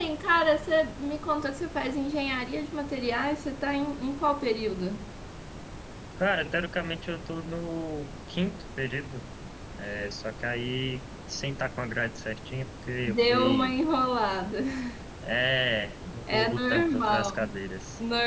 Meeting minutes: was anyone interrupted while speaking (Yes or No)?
Yes